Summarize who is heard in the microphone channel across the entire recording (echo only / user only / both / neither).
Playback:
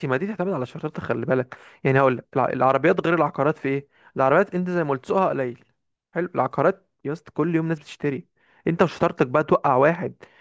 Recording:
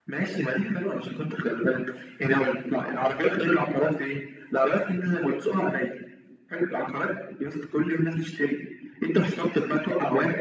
echo only